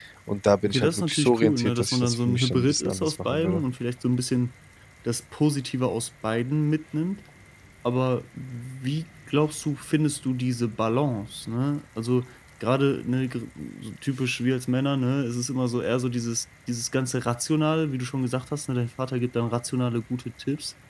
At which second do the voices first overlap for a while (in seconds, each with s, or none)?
0.7 s